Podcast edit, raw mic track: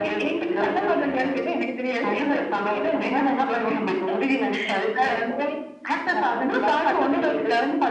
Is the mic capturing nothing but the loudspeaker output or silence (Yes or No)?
Yes